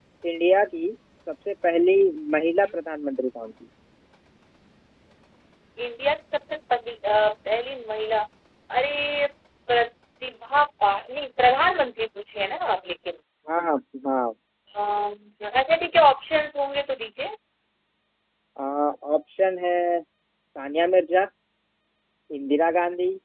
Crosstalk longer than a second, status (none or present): none